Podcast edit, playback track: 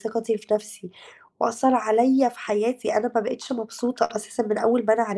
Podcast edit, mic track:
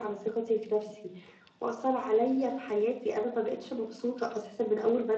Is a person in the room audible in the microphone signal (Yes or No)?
No